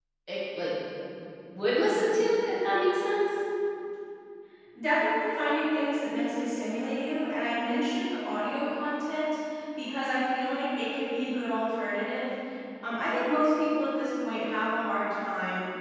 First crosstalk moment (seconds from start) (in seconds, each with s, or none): none